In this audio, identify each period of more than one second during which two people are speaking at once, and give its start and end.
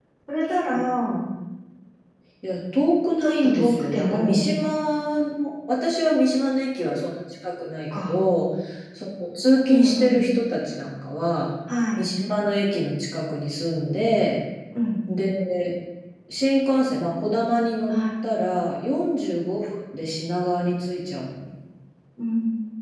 3.2-4.5

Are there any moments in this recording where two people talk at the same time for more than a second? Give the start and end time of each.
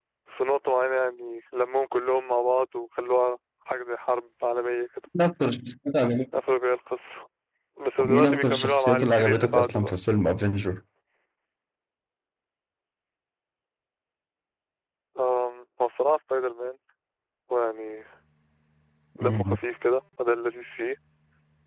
8.0-9.9

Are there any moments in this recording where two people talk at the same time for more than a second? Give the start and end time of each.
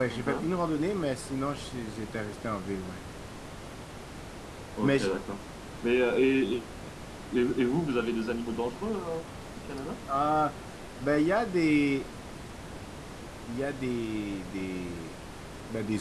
none

